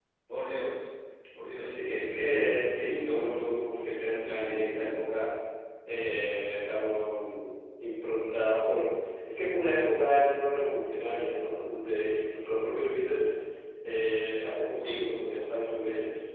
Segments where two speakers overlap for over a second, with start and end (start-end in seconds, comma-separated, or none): 1.5-3.4